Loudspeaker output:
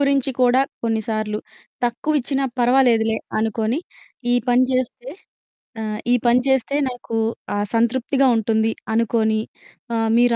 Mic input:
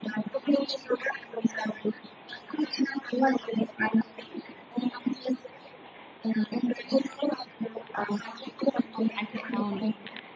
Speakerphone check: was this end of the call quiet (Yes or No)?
No